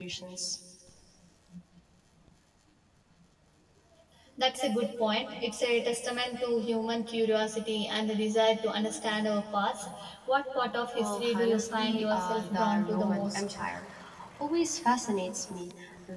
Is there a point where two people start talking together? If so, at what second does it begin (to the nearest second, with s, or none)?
11 s